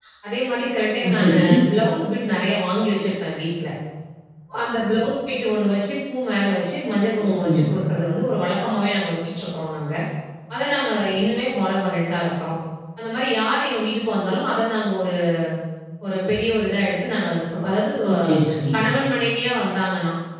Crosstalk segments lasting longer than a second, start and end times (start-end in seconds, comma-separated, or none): none